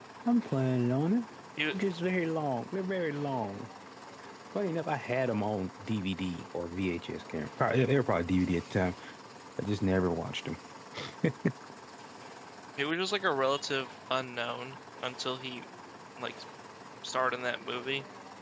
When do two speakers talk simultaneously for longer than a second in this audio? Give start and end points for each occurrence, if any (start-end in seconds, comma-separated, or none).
none